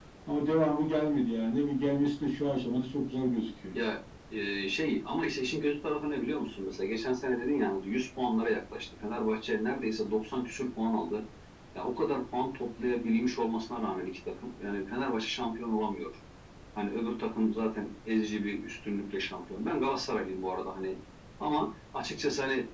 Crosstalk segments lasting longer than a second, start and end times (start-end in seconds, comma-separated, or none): none